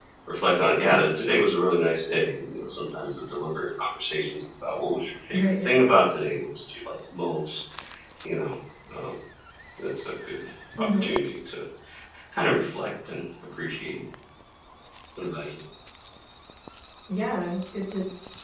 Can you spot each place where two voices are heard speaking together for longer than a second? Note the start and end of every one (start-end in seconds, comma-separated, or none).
none